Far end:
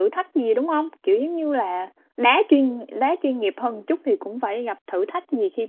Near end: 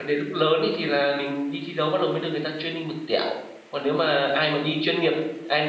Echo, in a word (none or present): none